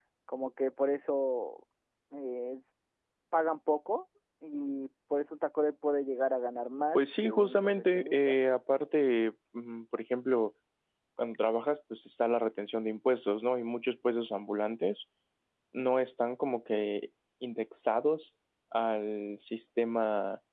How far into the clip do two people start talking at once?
7.0 s

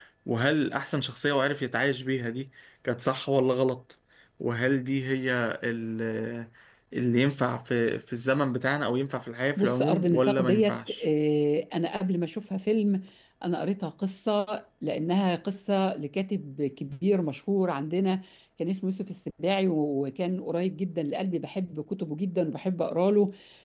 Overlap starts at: 9.6 s

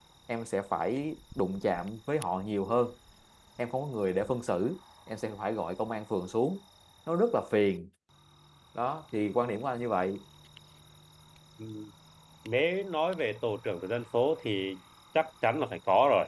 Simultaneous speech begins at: none

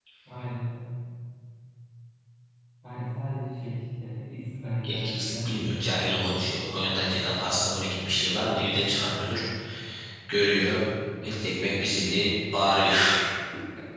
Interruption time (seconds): 4.8 s

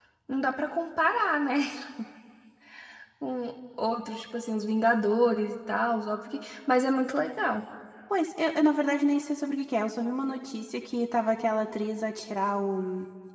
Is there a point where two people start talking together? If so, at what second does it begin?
none

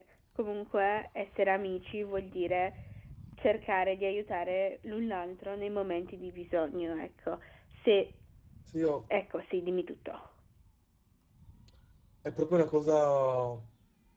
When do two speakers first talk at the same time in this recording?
none

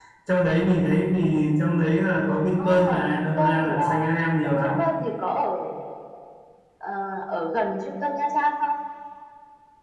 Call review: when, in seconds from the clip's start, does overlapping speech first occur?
2.6 s

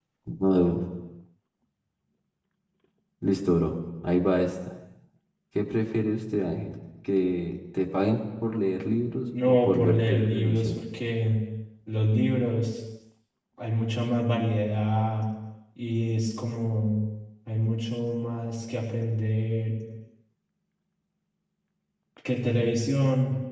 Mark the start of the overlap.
9.3 s

